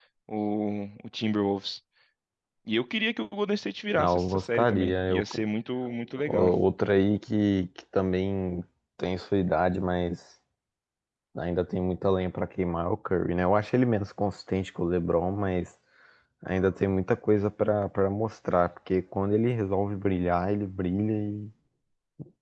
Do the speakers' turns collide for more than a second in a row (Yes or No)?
Yes